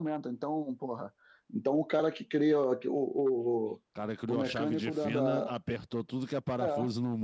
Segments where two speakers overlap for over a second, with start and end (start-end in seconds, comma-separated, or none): 4.3-5.5